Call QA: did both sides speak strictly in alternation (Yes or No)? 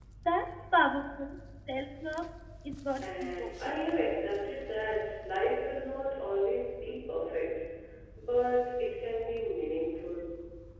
No